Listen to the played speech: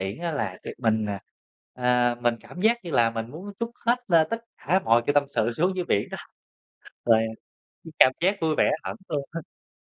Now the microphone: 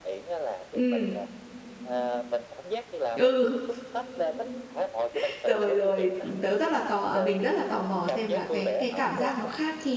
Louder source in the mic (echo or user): user